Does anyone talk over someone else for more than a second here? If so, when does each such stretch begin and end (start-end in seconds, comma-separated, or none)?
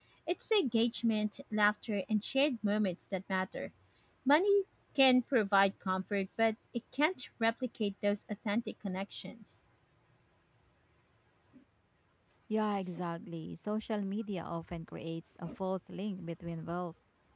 none